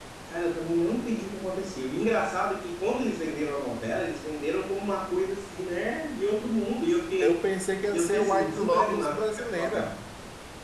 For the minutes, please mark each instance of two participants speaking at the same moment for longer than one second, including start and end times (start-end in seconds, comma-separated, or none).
7.9-9.9